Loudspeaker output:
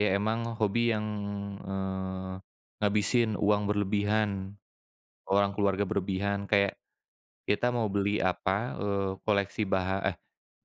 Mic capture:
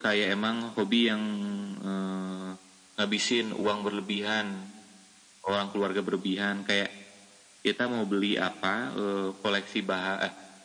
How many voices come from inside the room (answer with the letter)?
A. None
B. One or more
A